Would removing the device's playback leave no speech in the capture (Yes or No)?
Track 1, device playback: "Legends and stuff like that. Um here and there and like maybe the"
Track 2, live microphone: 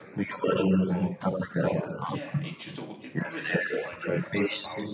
No